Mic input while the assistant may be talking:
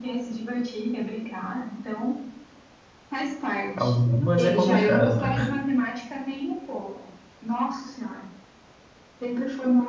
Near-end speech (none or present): present